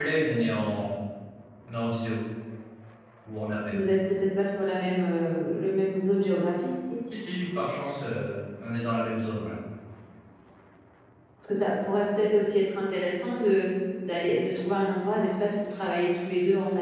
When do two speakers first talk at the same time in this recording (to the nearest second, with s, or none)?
none